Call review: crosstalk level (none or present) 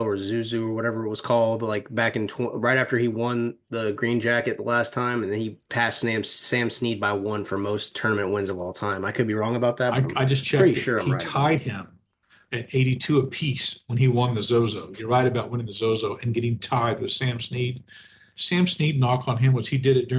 present